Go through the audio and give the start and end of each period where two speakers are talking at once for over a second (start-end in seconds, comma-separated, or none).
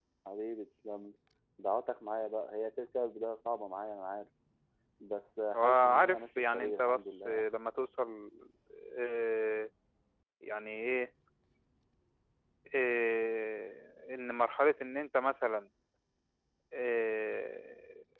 5.5-7.5